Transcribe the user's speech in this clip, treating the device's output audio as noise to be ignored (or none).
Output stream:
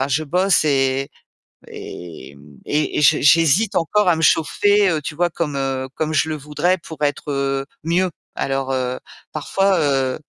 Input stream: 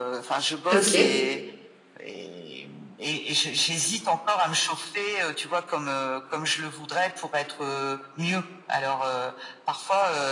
OK.